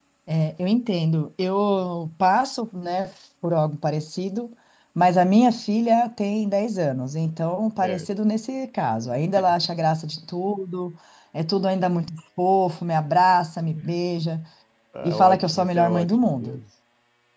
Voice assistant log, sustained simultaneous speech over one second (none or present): present